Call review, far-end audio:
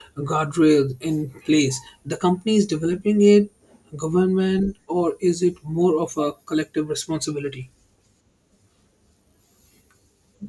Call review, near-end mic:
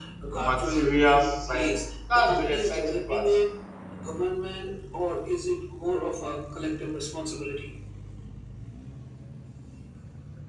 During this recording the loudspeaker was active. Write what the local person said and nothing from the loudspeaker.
material science. That's the exciting part.

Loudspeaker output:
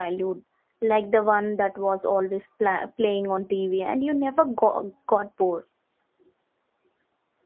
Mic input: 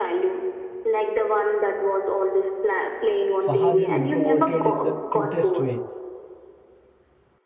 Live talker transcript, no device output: Fahad is introverted in the cutest way.

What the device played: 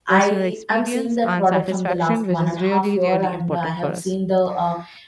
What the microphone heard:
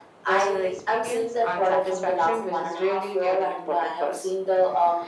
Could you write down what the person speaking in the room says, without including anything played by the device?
none

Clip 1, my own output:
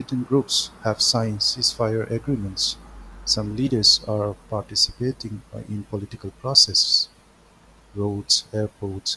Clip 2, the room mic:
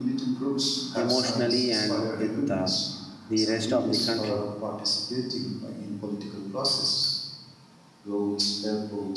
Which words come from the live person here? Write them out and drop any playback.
emotionally and with uh, the rest of the country.

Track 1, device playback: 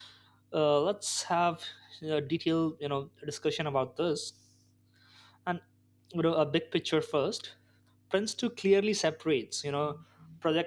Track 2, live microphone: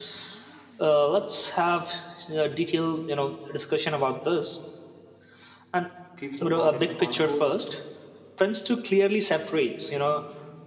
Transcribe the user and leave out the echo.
keeps the project on course.

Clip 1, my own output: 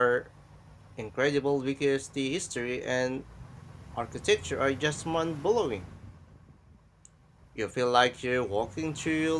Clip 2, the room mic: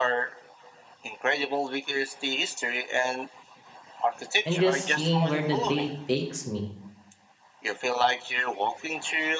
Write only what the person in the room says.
and just seeing where the day takes me.

